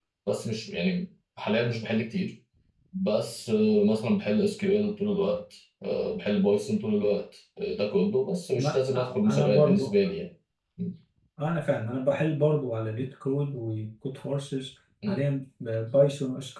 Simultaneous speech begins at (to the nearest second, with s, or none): 9 s